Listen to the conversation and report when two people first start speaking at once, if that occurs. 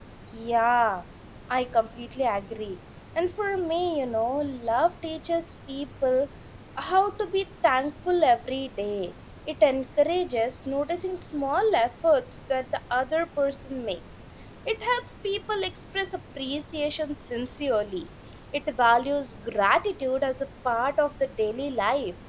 none

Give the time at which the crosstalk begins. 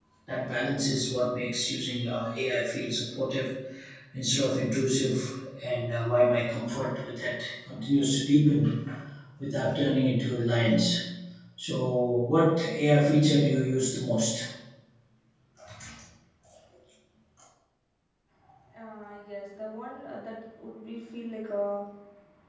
none

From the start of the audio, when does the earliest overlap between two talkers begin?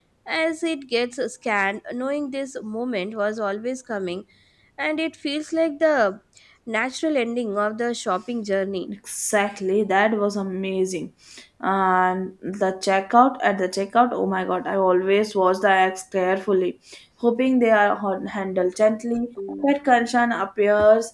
none

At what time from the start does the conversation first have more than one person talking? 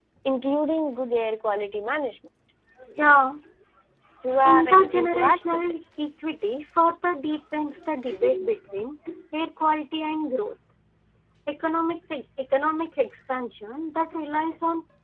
4.5 s

